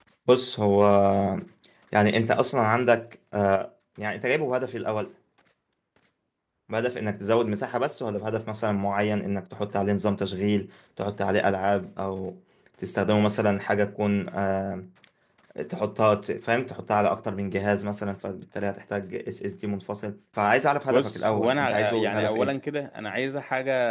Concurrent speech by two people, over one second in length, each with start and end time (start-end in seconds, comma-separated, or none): 20.9-22.5